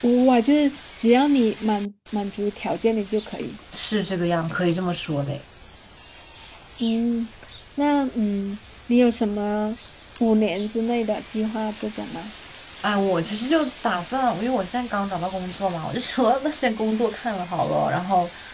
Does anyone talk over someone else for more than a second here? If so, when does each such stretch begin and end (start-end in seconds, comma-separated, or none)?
none